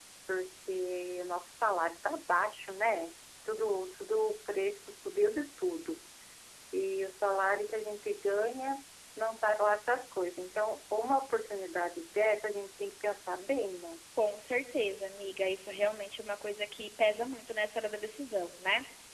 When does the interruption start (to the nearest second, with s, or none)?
none